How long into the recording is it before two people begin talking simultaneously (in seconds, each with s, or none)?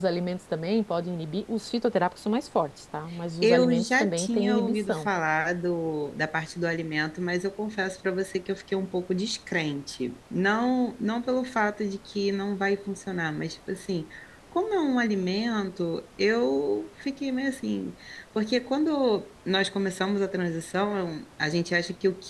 3.4 s